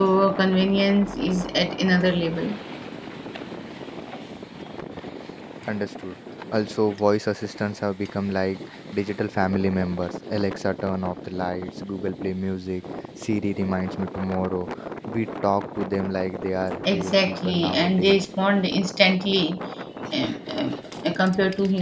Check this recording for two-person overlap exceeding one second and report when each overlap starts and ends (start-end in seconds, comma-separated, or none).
16.9-18.2